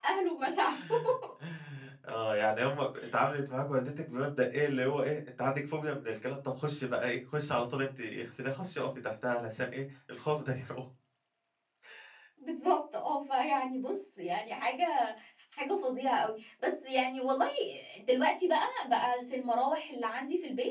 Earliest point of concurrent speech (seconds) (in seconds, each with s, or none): none